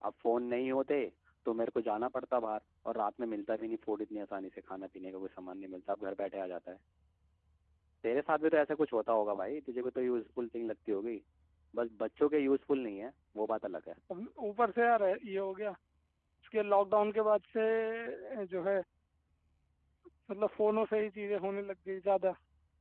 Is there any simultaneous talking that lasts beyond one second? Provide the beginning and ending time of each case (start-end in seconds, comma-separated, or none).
none